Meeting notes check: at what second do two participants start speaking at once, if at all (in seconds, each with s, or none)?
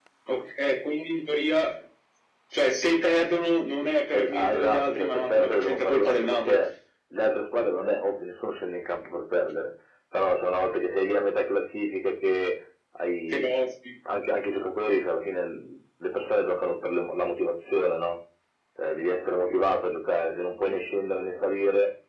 4.1 s